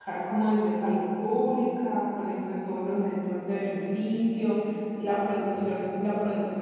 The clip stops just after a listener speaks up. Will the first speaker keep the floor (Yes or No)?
Yes